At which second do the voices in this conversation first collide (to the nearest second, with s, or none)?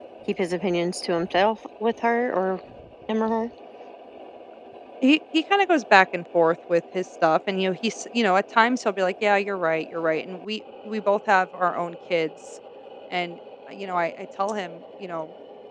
none